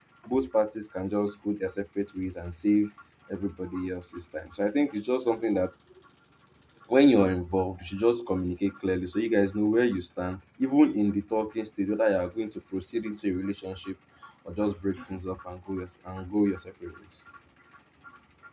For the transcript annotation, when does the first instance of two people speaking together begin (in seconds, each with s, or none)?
none